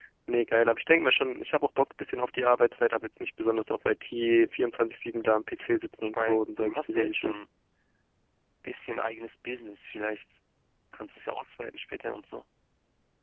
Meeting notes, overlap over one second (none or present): present